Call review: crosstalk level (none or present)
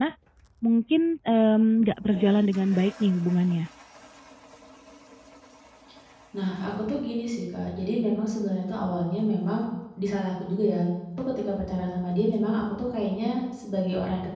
none